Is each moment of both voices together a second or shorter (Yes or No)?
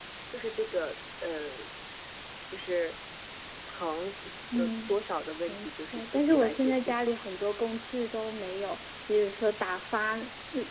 No